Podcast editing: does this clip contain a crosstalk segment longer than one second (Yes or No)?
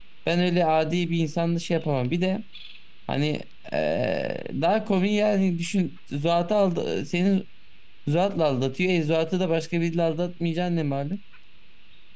No